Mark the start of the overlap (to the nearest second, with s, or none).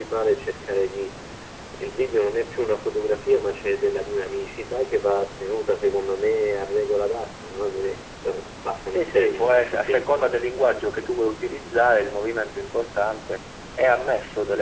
9 s